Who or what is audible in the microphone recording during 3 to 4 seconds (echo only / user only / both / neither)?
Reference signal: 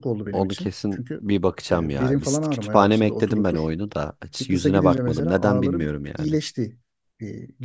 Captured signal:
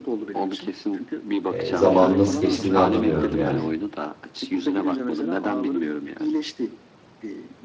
both